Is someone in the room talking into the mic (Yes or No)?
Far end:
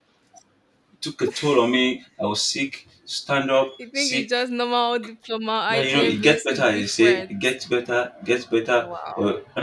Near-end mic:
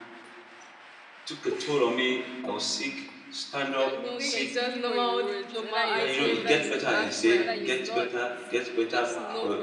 Yes